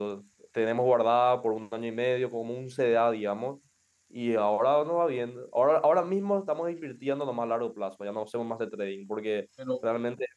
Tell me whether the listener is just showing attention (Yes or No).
Yes